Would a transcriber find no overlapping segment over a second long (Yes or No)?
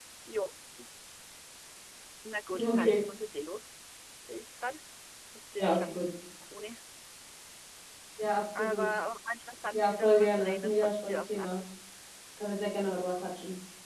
No